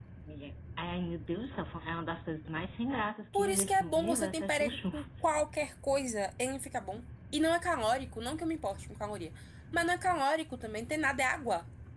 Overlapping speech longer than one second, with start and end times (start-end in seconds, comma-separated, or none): 3.3-4.8